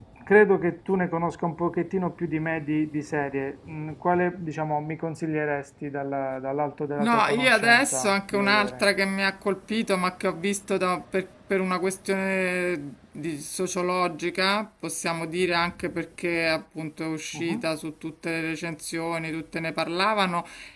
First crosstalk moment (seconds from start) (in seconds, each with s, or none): 7.0 s